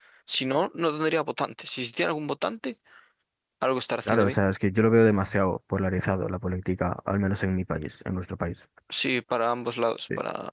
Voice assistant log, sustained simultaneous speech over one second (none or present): none